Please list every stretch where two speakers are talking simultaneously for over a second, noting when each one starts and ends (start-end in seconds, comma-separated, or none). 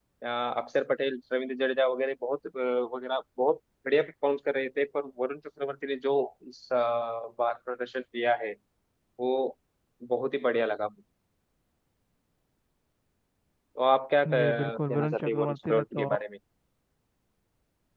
14.4-16.1